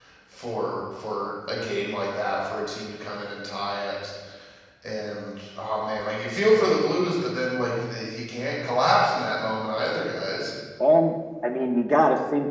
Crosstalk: none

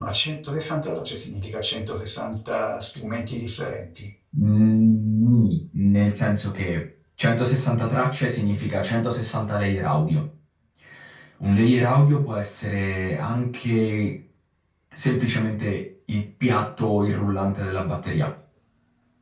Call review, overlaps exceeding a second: none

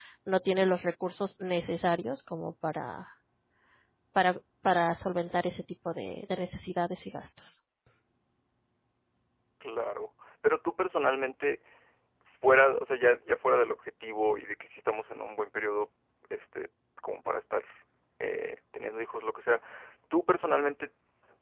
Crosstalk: none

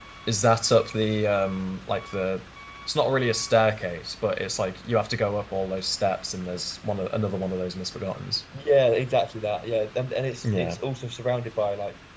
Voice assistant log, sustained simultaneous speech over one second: none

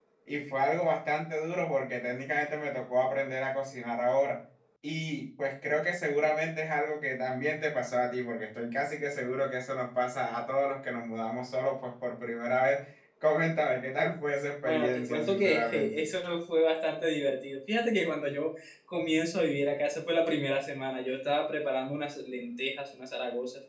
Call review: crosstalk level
present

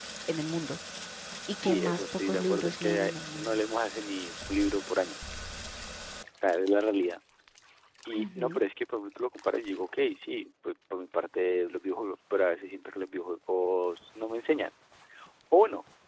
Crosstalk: present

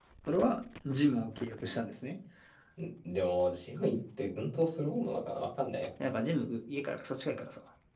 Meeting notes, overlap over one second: none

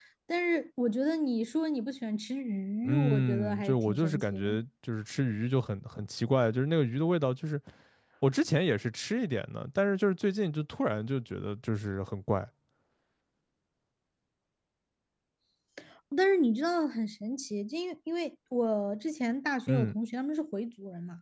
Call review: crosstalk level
present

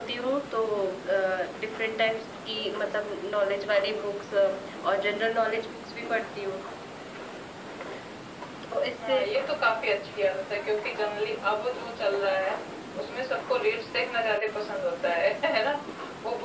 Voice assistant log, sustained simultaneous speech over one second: none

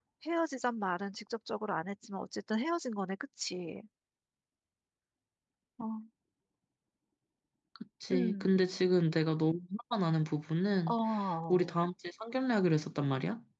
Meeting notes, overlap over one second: none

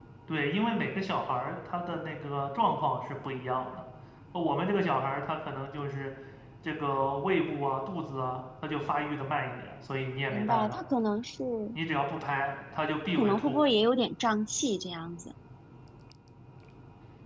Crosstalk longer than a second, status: none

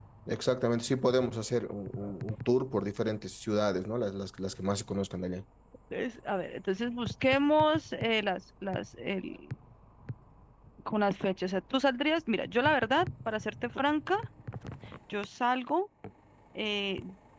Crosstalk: none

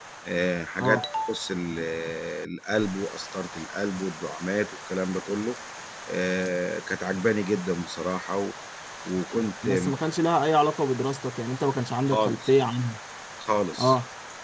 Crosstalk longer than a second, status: none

